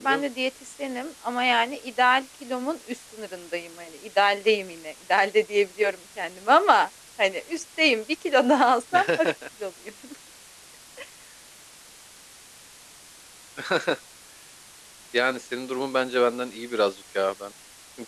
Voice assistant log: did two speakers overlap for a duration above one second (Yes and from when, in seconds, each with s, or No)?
No